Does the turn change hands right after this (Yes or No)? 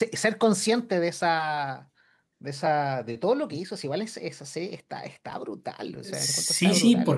Yes